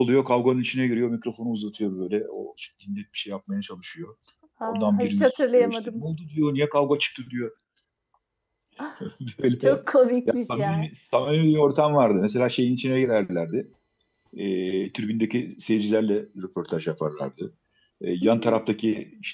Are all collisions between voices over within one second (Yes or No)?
No